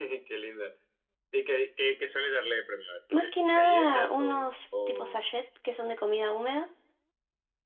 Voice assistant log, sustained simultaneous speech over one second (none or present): present